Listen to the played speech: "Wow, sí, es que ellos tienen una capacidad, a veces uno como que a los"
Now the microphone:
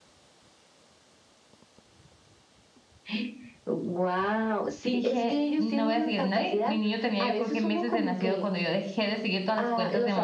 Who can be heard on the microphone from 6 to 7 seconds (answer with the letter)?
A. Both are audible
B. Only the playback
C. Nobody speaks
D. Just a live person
A